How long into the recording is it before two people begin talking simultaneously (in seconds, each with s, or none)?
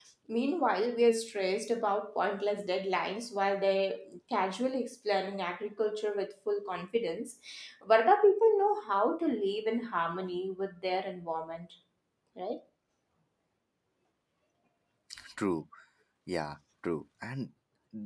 none